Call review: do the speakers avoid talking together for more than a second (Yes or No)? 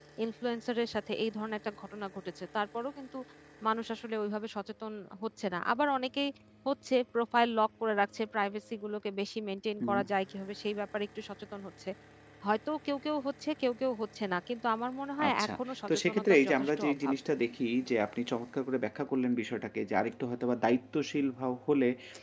No